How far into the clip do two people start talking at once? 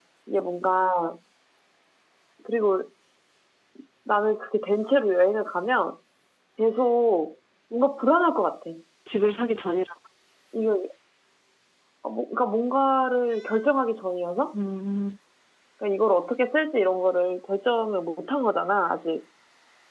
none

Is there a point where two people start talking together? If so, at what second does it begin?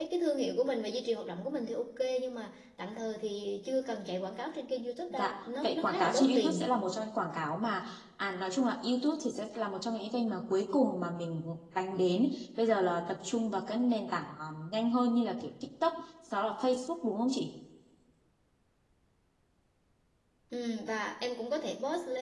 5.1 s

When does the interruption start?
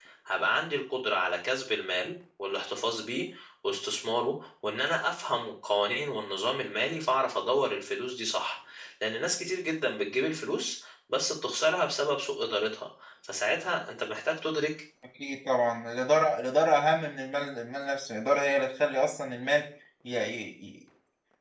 none

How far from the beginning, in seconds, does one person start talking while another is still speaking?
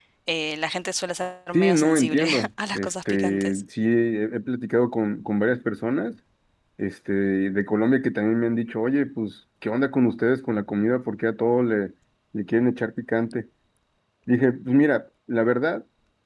1.5 s

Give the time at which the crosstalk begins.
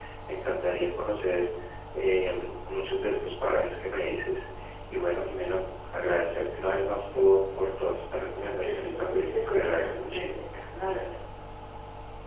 8.4 s

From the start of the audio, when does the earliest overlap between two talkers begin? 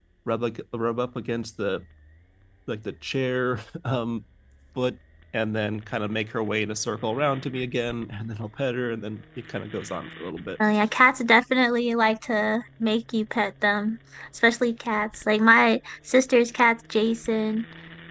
none

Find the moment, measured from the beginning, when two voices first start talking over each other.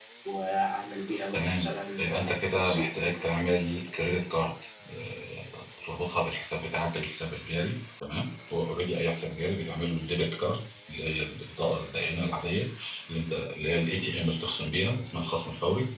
1.3 s

